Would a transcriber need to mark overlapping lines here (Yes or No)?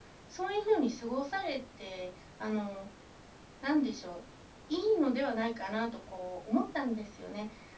No